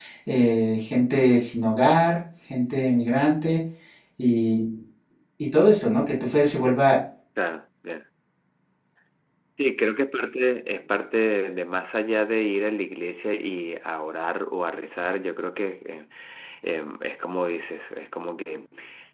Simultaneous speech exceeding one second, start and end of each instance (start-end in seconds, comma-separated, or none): none